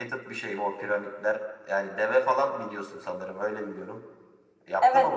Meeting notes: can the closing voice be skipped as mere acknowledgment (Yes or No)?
No